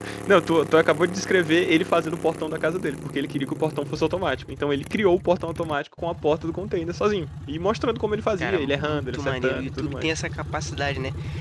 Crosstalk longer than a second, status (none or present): present